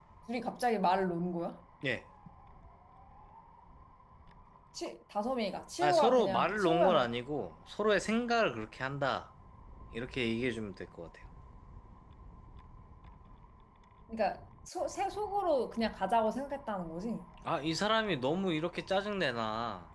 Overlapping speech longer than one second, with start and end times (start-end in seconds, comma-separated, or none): 5.8-7.0